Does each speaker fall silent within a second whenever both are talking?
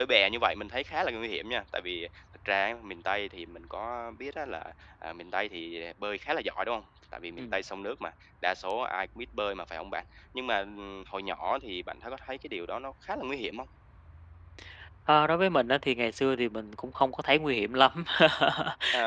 Yes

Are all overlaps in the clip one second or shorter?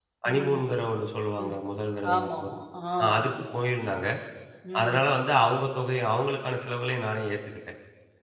Yes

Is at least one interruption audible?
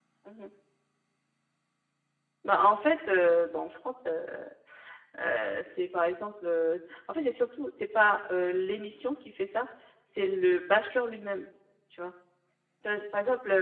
No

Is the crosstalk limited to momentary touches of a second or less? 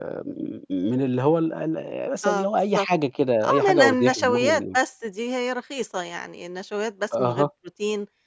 No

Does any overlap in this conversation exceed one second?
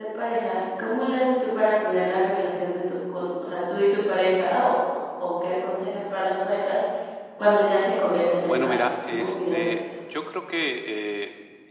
Yes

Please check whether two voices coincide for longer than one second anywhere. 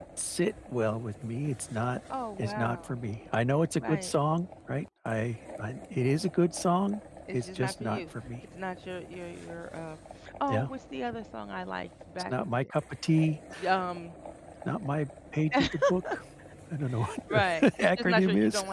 Yes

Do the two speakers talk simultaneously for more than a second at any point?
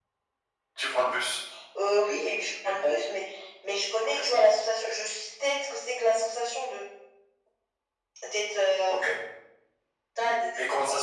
No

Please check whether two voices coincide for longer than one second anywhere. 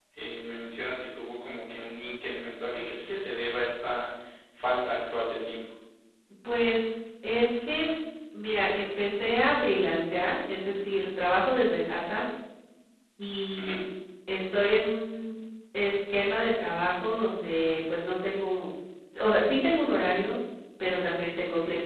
No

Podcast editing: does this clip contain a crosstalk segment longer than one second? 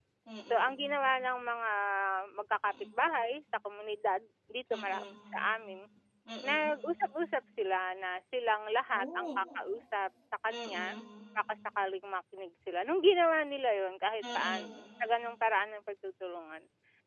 No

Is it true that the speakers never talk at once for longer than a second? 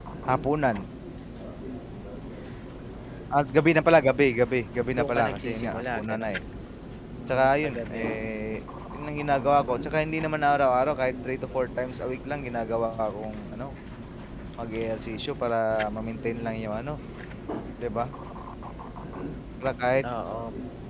No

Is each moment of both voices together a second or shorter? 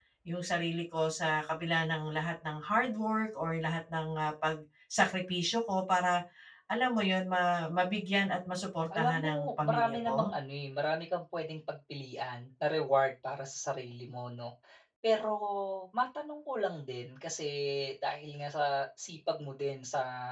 No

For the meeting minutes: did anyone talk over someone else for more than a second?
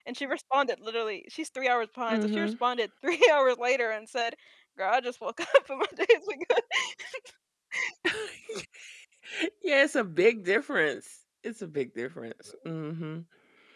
No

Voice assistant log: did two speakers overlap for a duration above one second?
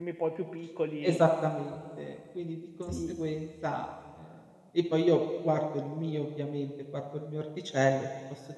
No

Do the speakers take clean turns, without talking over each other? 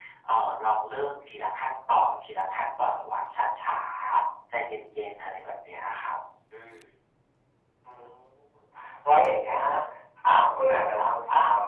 Yes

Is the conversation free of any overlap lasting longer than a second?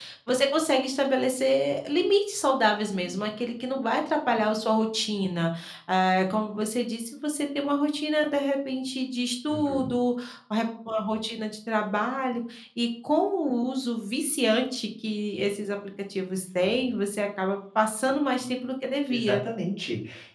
Yes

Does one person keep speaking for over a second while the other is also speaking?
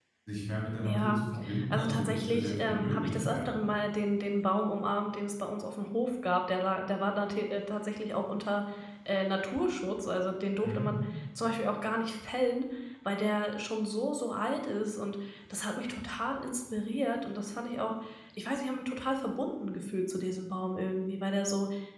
Yes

